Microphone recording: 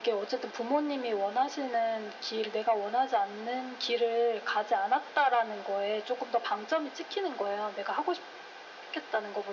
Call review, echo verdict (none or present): present